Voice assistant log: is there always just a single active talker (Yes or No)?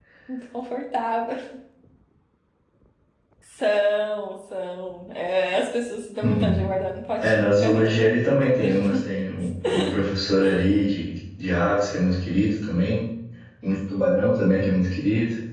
No